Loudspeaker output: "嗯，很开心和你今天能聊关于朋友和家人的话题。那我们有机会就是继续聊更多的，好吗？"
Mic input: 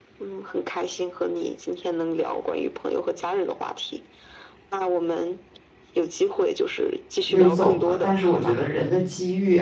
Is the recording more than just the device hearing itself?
Yes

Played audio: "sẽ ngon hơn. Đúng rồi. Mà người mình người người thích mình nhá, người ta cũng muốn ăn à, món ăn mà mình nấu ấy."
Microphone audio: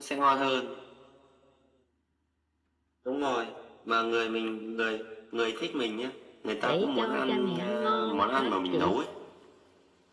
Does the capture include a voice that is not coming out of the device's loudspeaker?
Yes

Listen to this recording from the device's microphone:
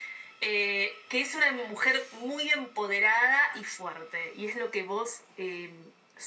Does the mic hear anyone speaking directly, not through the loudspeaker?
No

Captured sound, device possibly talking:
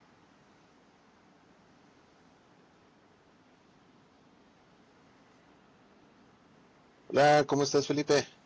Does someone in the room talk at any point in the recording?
Yes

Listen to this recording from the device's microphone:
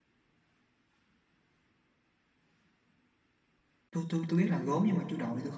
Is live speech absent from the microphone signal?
No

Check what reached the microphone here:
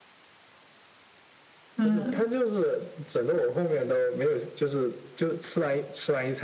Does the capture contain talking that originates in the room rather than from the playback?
Yes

